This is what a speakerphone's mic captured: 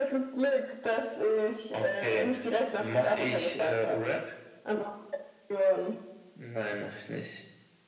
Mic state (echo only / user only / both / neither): echo only